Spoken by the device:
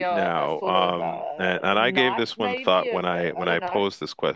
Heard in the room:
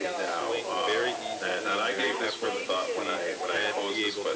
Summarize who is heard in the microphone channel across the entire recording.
both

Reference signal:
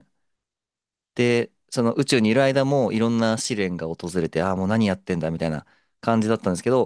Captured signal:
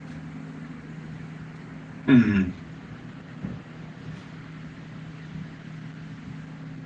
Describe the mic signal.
user only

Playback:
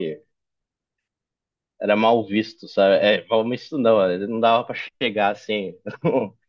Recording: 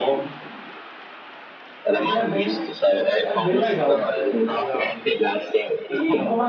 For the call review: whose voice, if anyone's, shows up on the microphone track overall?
both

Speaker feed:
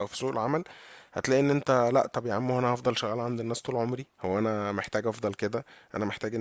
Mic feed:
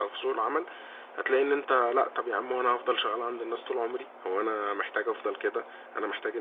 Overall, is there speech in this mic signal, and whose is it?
echo only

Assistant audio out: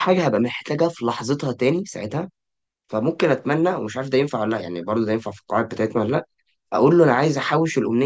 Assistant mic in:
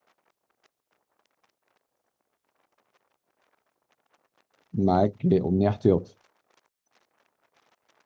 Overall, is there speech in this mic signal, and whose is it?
user only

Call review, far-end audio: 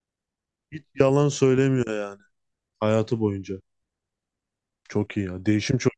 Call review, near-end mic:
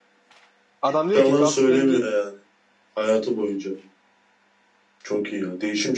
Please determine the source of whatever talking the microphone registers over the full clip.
both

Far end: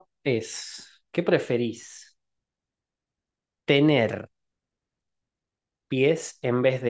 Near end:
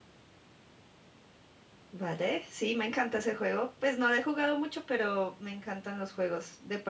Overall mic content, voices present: user only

